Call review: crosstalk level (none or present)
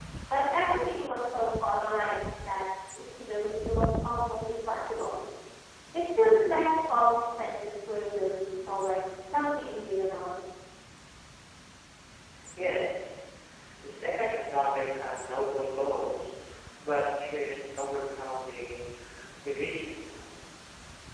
none